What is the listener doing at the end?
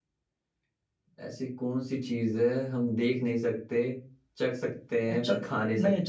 taking over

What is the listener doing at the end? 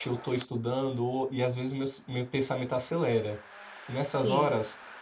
listening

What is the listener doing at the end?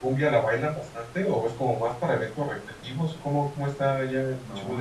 taking over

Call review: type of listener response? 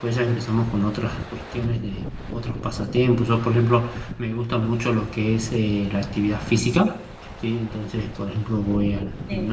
listening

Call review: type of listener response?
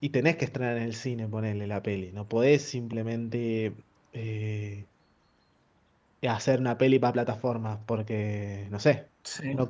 taking over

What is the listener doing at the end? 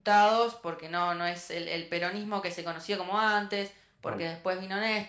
listening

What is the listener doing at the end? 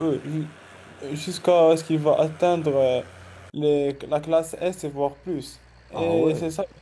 listening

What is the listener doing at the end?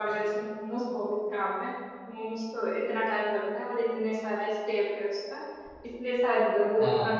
listening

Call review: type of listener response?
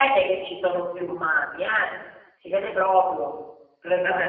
taking over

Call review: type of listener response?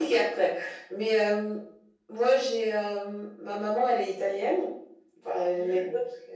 listening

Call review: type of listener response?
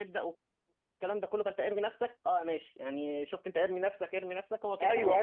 taking over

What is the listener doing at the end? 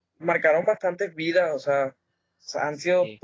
listening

